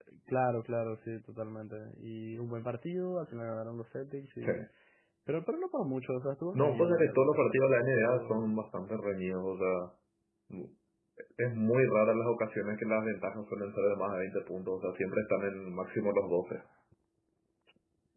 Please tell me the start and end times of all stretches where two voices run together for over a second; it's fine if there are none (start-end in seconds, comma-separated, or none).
6.5-8.5